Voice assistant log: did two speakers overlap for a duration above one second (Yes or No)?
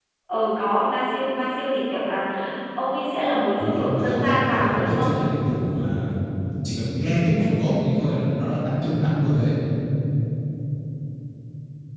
Yes